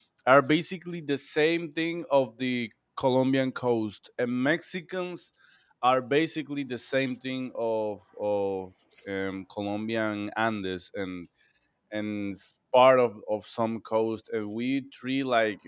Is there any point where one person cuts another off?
No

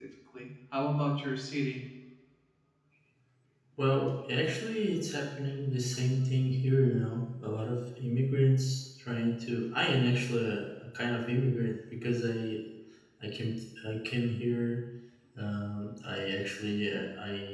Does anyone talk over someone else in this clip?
No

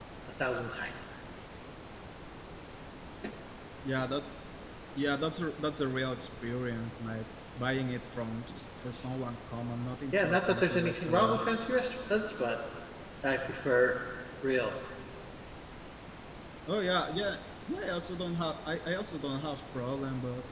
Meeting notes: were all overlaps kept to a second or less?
No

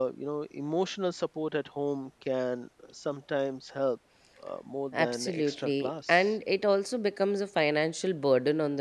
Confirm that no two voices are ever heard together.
No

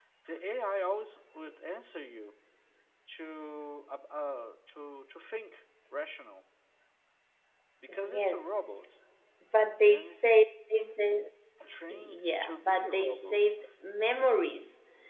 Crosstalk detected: Yes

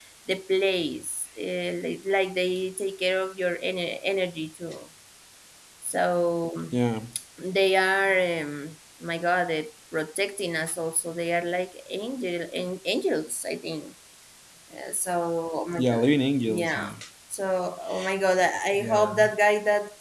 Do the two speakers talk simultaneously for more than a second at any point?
No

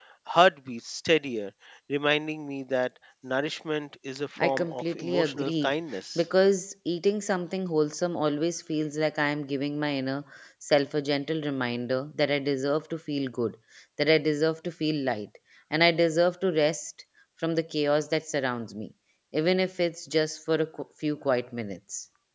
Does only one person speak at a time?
No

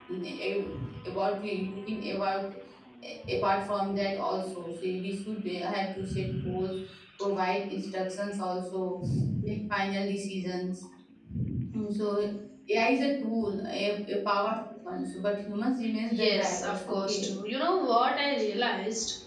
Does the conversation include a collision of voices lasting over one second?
Yes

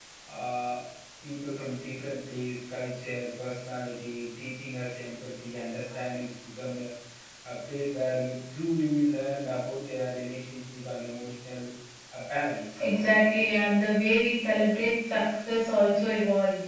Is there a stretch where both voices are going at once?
No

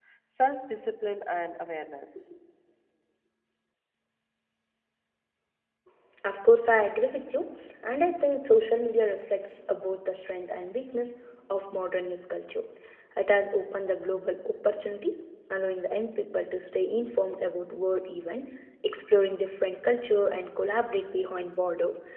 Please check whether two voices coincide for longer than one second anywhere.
No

